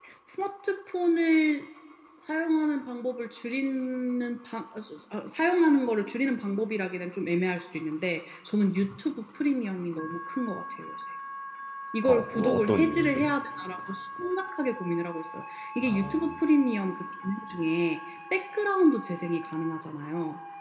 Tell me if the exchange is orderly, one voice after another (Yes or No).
No